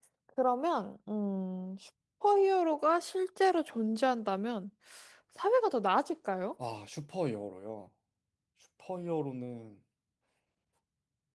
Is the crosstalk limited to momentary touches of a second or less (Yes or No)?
Yes